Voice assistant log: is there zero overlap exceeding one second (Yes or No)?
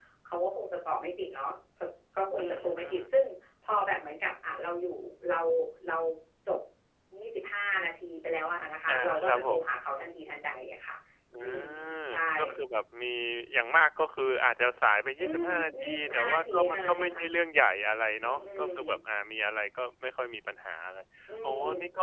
No